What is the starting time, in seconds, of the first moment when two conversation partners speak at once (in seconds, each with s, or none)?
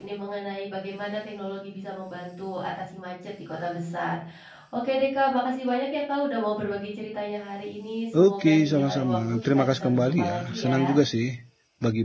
8.1 s